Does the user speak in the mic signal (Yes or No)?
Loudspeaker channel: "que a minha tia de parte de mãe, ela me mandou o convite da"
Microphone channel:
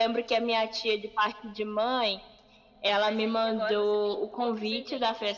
Yes